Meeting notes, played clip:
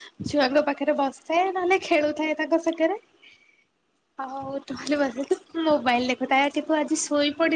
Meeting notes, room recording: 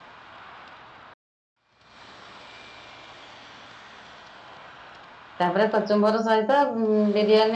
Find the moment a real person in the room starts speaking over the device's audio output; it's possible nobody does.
5.4 s

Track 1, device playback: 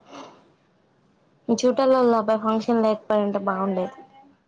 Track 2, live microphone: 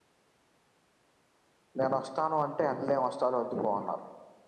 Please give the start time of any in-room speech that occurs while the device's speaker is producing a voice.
1.8 s

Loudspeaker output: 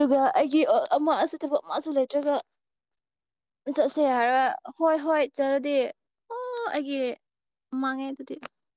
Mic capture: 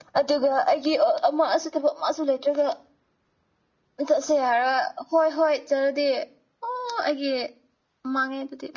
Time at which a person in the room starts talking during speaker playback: none

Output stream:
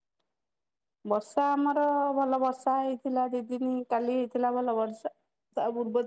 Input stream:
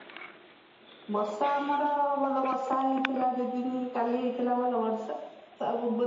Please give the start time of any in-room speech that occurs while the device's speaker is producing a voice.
none

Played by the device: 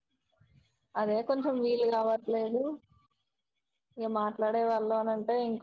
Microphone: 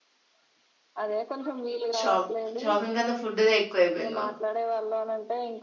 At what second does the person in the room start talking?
2.0 s

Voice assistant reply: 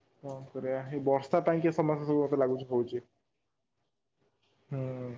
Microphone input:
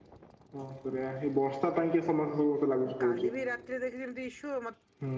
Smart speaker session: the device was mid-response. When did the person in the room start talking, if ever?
2.9 s

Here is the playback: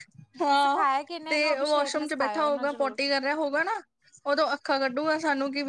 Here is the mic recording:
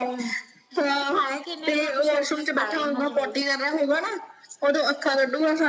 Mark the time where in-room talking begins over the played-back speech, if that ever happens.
none

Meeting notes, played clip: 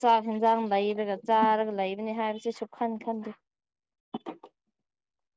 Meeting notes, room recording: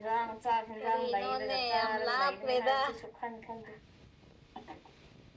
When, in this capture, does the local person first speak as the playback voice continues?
0.8 s

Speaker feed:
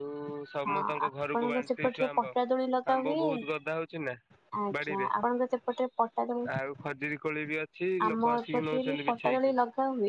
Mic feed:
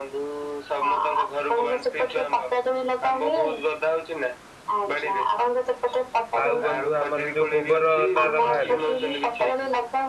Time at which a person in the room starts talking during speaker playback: 6.4 s

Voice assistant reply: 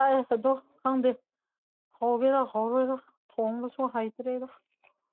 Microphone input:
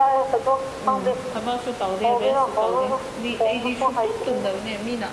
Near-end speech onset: 0.8 s

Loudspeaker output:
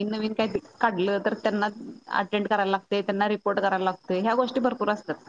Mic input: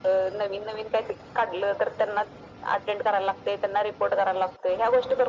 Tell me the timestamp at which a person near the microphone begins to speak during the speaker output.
none

